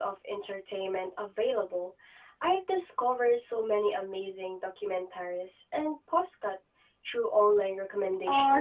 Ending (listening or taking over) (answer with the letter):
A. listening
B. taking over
B